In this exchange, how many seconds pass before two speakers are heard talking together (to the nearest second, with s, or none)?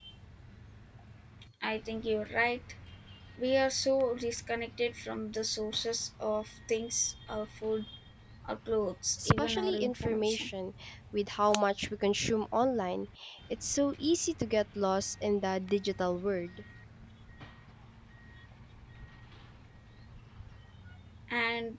9 s